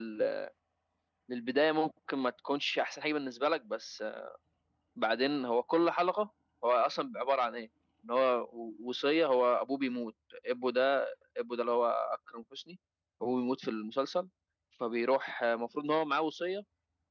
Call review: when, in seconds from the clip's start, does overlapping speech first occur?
none

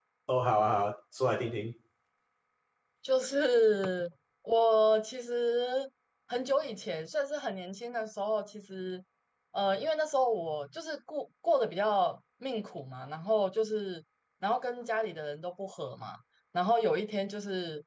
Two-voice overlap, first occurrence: none

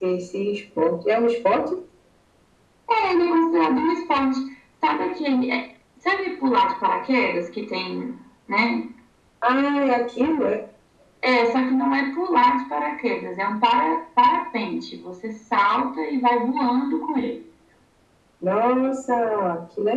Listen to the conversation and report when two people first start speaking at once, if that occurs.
none

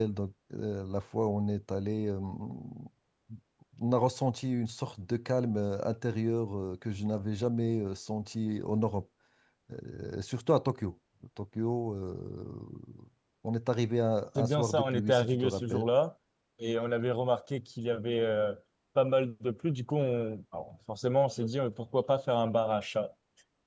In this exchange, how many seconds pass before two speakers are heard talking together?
14.3 s

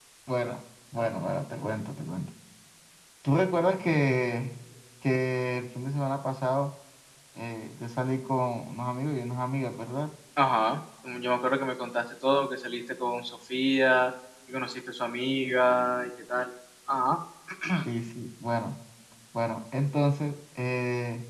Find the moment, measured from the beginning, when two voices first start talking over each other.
none

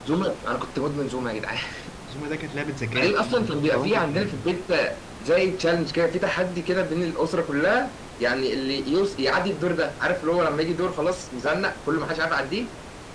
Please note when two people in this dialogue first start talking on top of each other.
3.0 s

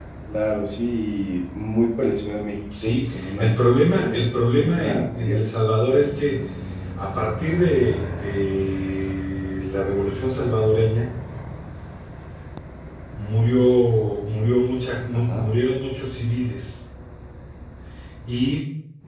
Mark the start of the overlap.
2.8 s

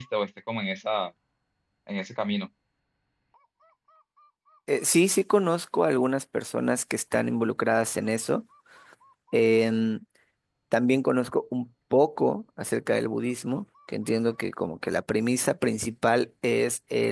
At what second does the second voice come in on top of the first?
none

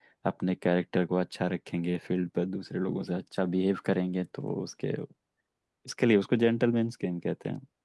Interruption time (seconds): none

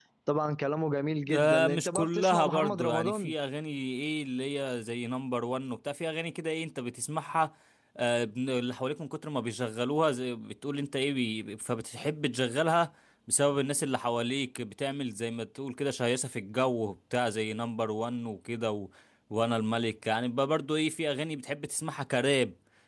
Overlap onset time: 1.3 s

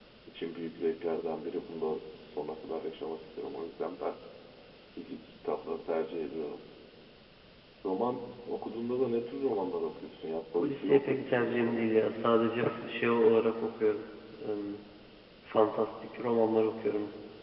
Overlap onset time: 10.5 s

